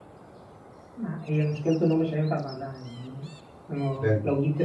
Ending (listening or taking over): listening